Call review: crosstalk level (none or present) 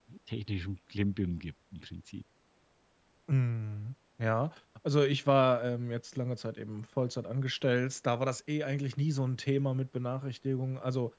none